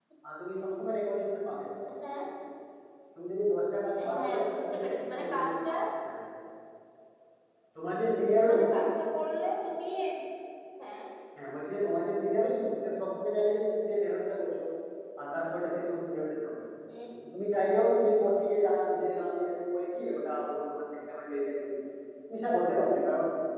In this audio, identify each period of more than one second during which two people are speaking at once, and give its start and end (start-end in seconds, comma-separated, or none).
4.1-5.7